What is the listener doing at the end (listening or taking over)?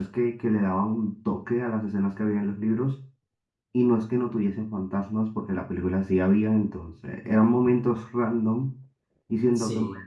listening